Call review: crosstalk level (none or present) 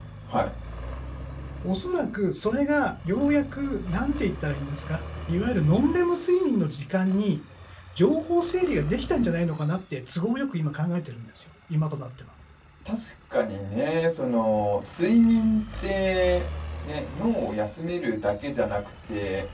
none